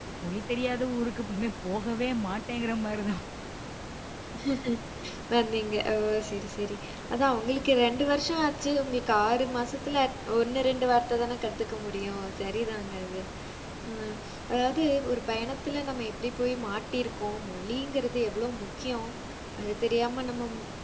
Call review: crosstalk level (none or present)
none